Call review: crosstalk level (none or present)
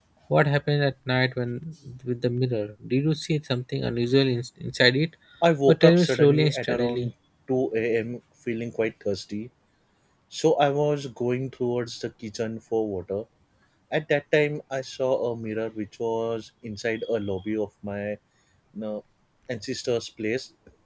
present